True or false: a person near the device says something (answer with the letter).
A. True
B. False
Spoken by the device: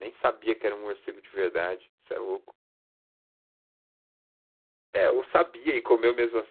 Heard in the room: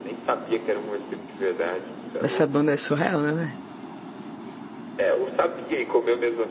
A